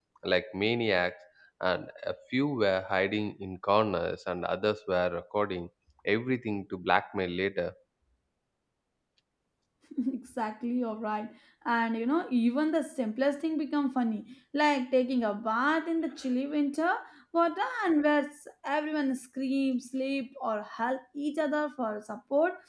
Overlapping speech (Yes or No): No